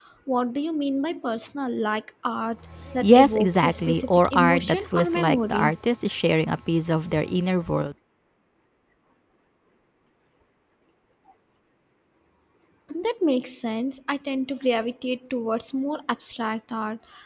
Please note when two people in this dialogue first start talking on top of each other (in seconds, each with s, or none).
3.0 s